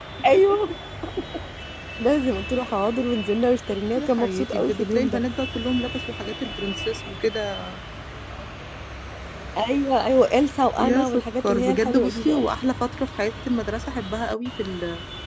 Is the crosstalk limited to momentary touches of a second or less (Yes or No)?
No